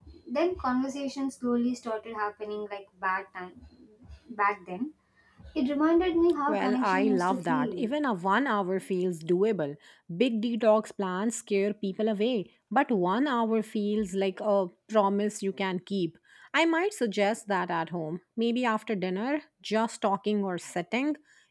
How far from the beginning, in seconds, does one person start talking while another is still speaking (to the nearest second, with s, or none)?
6 s